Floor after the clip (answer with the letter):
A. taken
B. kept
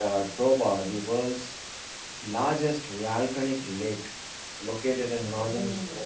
B